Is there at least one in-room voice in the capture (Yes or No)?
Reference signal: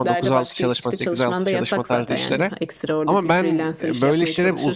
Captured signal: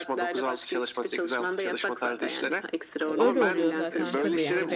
Yes